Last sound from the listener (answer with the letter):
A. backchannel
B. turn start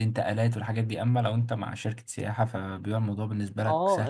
B